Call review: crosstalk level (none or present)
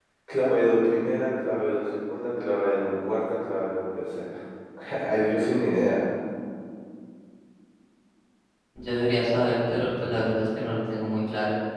none